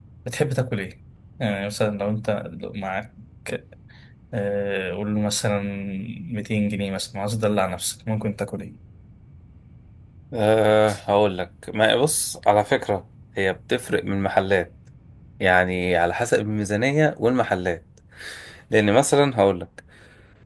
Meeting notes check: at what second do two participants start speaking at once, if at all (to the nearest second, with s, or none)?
none